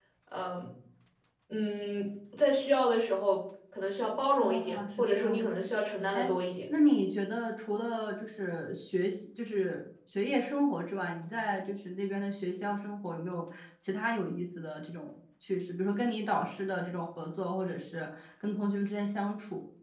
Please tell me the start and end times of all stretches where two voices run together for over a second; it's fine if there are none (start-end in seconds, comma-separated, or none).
4.4-5.7